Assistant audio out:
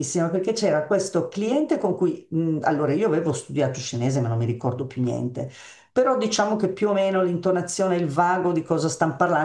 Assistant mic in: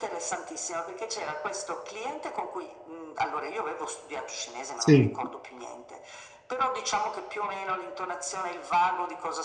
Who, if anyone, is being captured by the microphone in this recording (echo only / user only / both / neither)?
both